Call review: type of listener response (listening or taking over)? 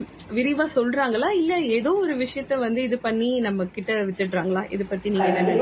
taking over